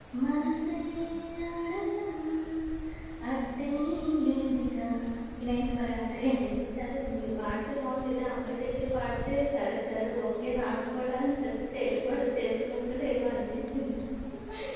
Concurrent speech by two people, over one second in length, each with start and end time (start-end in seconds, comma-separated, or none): none